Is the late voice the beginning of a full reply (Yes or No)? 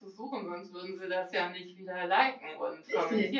Yes